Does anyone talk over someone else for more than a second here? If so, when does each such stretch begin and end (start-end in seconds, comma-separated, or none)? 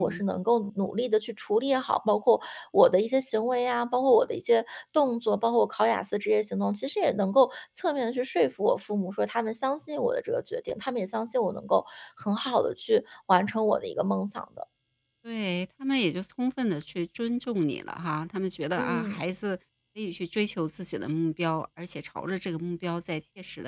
none